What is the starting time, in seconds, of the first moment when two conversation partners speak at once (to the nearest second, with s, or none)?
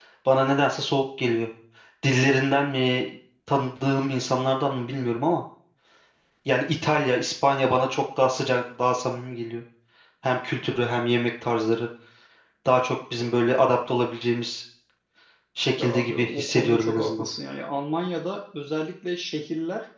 16 s